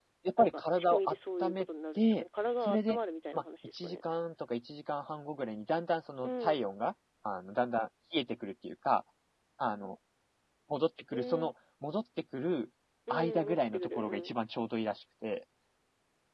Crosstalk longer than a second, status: present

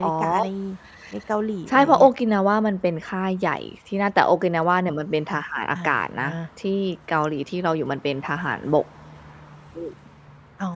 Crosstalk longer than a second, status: none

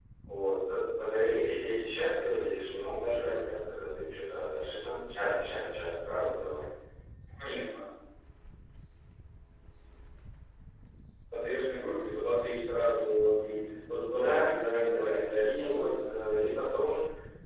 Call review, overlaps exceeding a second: present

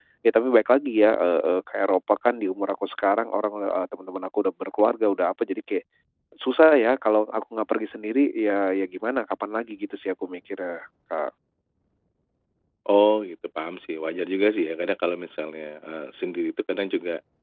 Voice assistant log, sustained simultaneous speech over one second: none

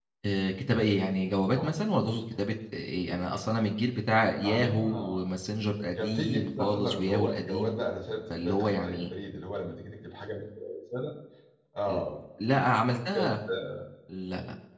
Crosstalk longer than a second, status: present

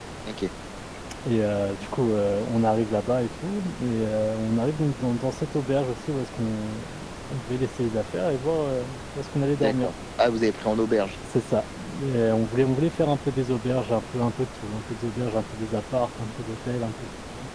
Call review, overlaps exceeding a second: none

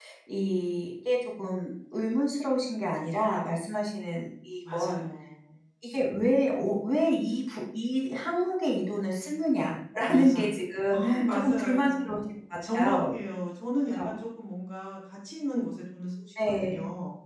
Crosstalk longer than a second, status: present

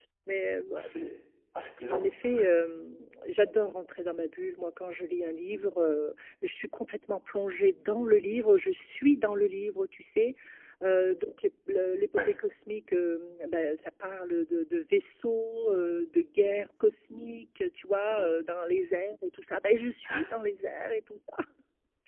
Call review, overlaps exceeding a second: none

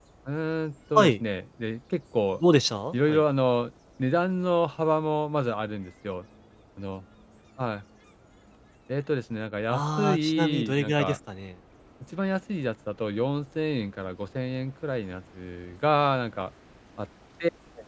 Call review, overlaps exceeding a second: present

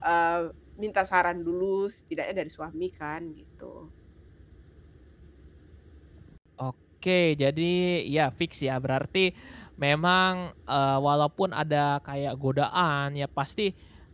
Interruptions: none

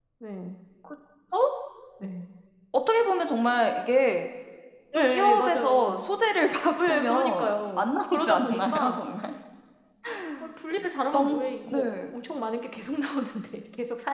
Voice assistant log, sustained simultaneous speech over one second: present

